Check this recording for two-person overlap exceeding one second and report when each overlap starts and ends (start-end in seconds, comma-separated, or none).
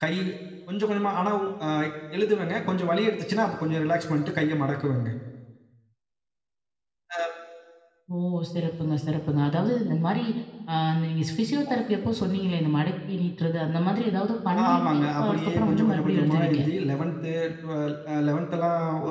14.5-16.6